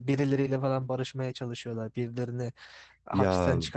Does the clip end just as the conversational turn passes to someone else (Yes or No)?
No